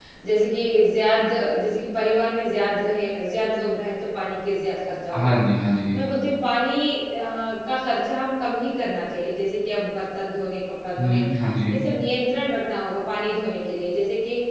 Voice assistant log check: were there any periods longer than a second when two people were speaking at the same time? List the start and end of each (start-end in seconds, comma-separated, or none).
none